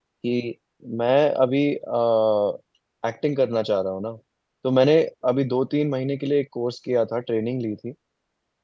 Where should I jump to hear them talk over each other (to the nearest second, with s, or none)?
none